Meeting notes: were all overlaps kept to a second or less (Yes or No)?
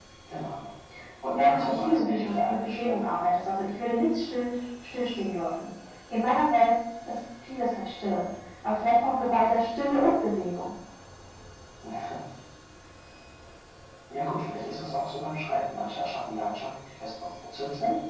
No